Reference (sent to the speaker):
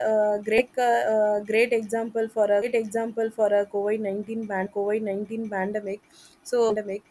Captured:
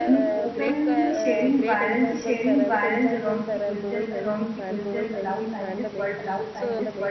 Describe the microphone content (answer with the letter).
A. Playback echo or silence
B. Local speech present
B